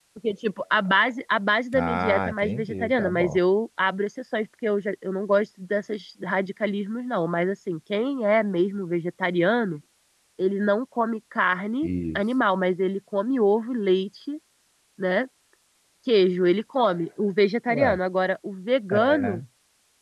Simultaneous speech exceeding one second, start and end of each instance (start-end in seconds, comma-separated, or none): 1.8-3.4